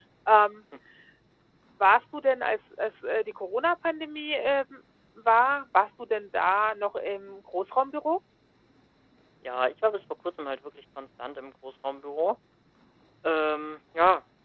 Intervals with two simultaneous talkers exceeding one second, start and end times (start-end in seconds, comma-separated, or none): none